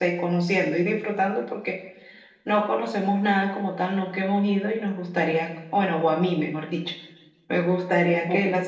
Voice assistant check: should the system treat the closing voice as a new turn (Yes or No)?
No